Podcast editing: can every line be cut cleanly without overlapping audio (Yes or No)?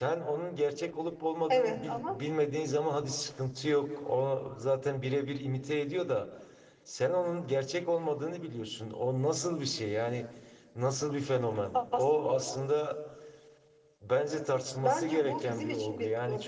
No